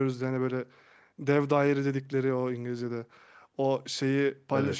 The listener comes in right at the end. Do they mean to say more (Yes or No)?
No